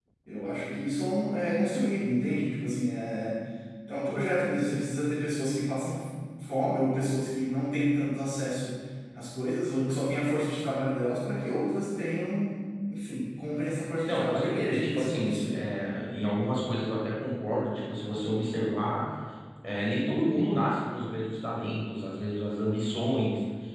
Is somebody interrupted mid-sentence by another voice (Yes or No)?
Yes